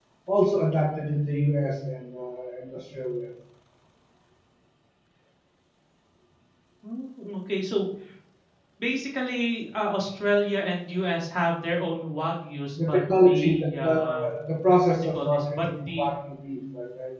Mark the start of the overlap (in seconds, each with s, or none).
12.8 s